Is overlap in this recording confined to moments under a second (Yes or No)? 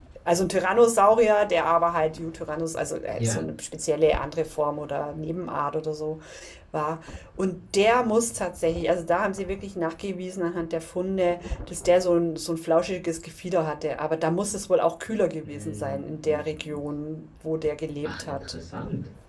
No